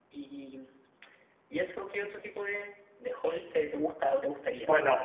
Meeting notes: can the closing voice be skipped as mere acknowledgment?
No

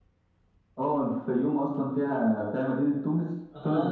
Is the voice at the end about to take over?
Yes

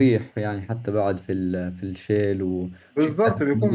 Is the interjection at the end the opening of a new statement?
Yes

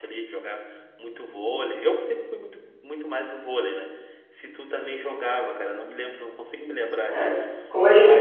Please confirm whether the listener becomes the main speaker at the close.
Yes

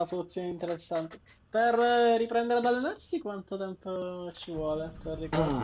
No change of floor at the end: No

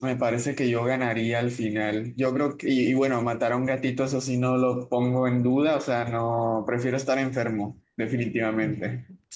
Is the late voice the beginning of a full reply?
Yes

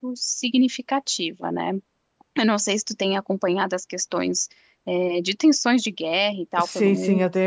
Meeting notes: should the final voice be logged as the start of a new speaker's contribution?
Yes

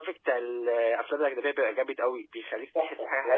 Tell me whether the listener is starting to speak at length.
Yes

